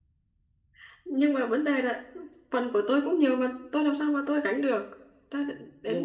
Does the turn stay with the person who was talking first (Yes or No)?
No